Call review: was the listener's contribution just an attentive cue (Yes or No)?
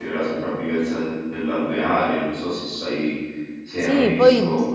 No